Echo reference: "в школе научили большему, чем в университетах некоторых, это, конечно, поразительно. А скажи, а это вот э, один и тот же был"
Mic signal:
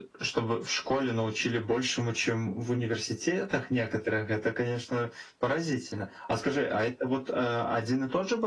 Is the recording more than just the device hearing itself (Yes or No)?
No